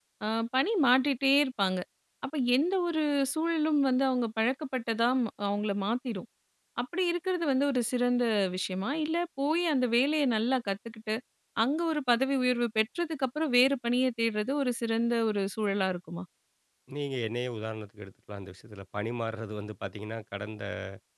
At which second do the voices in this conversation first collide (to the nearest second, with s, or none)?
none